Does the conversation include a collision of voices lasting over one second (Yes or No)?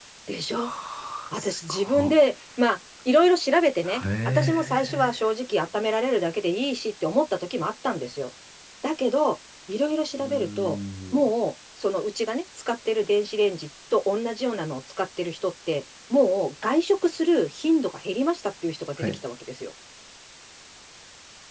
Yes